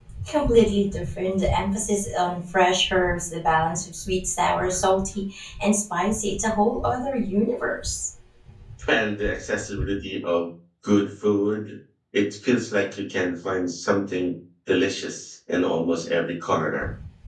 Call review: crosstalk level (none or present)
none